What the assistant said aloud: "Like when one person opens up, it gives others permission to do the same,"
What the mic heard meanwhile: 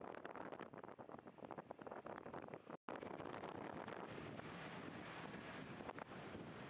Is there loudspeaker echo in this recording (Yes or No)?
No